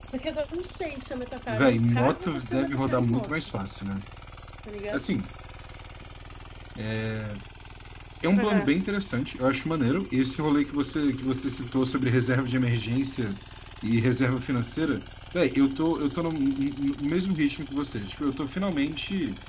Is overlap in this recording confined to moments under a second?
No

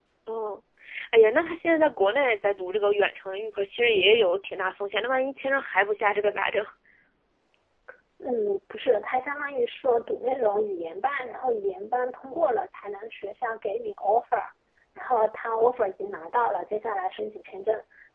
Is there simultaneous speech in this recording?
No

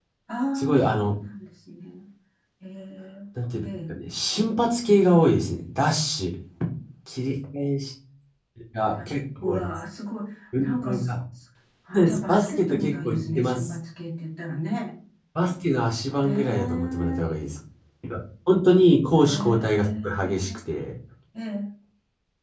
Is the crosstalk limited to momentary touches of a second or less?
No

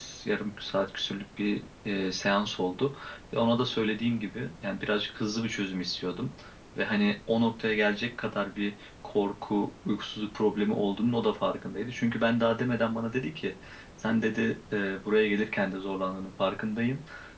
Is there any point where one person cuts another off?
No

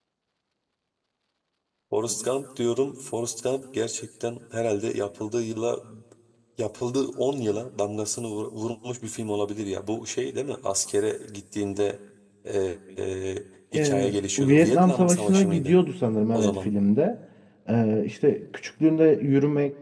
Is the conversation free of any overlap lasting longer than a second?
No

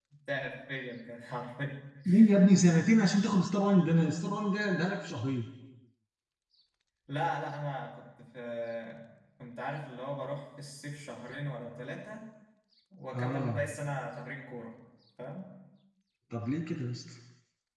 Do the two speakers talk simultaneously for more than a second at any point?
No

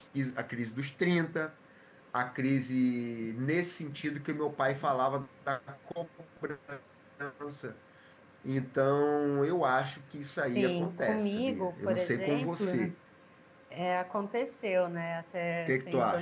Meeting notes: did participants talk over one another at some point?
Yes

